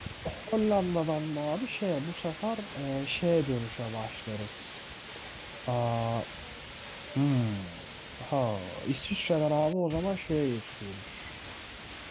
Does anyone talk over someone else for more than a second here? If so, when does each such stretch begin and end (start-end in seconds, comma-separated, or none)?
none